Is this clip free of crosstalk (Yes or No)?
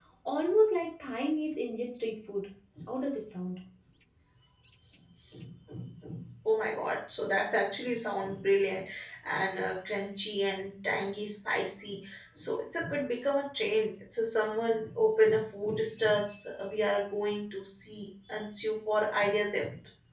Yes